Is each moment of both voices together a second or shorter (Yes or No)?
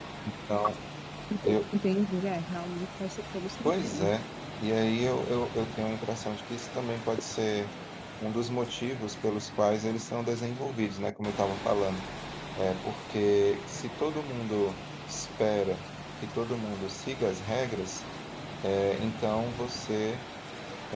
Yes